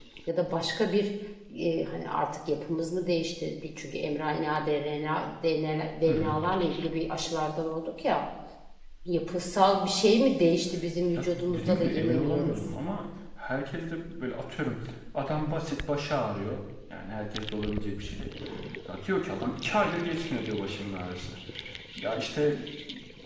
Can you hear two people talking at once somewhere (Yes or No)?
Yes